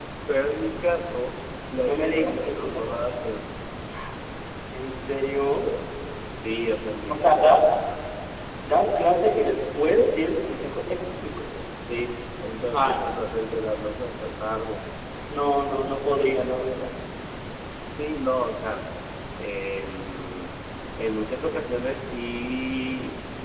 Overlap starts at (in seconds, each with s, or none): 1.9 s